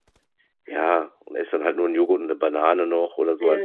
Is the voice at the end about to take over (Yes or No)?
Yes